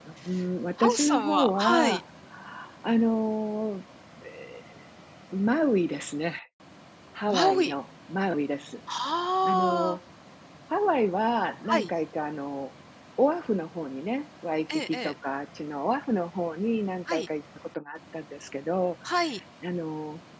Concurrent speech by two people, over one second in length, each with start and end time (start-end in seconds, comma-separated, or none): 0.8-2.0